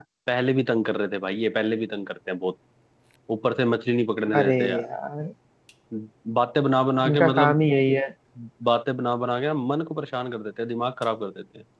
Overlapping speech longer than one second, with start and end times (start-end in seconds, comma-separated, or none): none